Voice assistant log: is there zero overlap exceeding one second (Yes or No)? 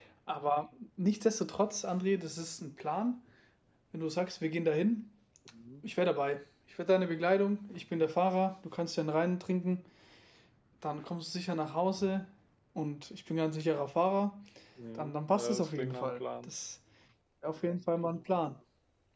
No